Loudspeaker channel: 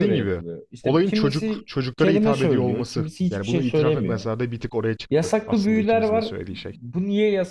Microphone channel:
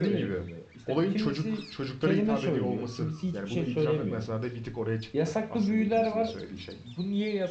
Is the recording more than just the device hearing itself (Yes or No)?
No